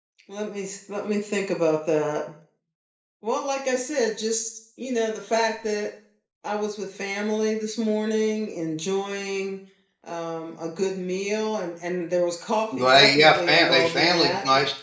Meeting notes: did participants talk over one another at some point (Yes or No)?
Yes